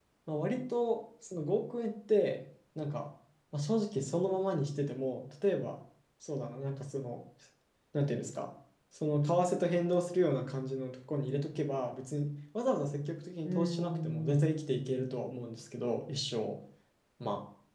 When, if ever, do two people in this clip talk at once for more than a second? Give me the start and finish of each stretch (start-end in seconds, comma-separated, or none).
13.4-15.4